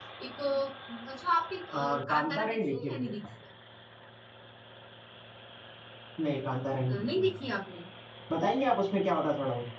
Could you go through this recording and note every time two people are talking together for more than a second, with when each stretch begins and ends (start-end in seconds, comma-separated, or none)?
1.7-3.1